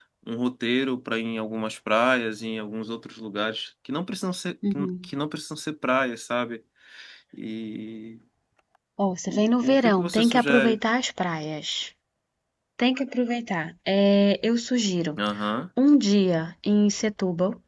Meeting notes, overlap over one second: present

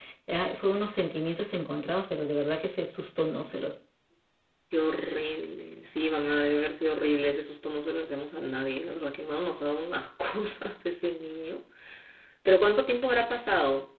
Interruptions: none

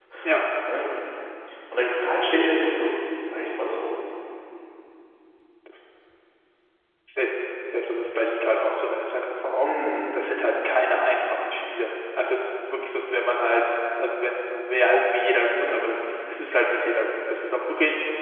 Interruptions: none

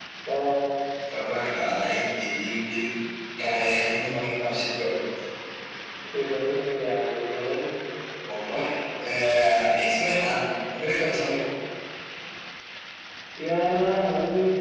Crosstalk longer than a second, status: none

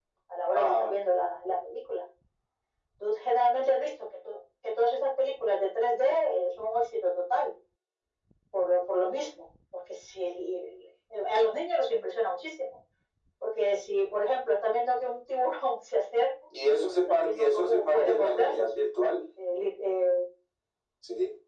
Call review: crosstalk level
present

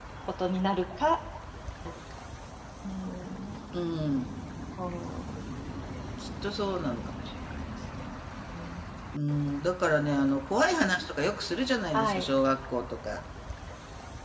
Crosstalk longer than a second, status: none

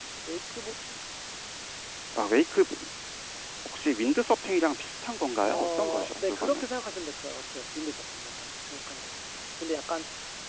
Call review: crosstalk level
present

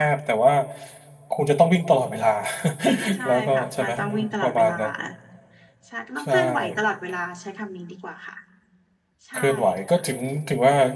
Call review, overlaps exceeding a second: present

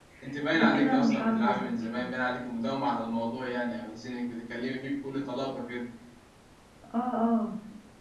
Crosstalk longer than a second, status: present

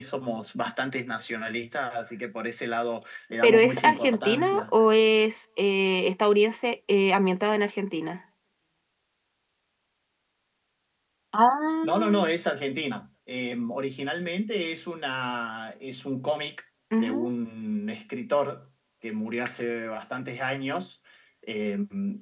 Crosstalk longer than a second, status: present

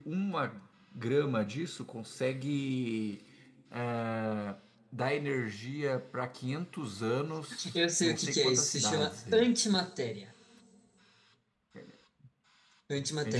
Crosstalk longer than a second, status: present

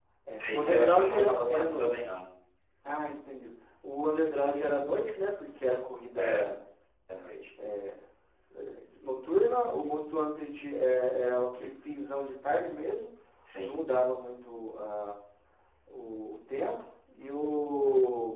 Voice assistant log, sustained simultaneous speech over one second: present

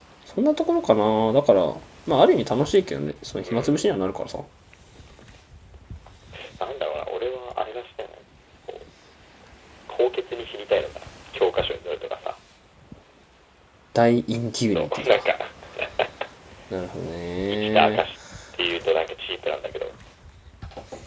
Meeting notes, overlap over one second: none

